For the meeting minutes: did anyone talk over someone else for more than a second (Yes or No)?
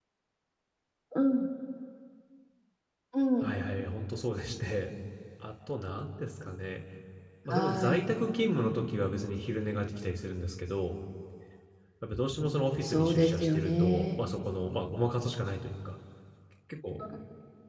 Yes